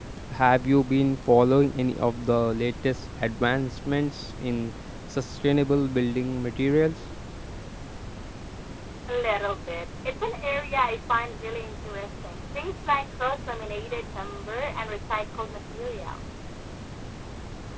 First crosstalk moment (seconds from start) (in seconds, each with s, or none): none